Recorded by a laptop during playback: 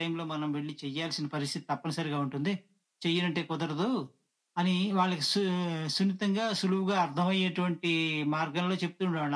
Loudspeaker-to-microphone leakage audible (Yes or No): Yes